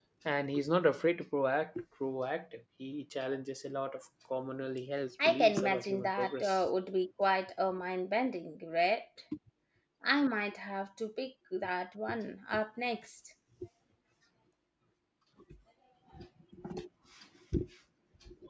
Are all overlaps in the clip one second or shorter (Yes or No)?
No